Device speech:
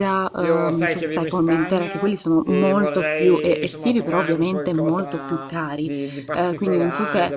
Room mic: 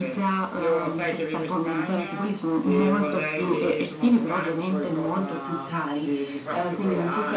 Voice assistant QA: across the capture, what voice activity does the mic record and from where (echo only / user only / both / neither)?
echo only